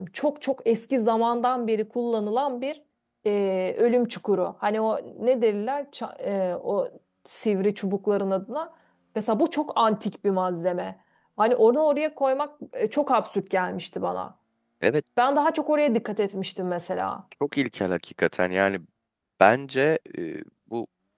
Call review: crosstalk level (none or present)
none